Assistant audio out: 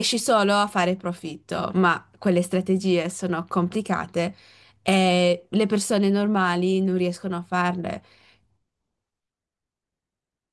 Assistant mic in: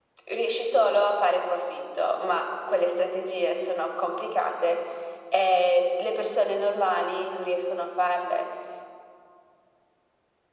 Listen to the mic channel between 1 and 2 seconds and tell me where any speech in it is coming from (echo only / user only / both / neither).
echo only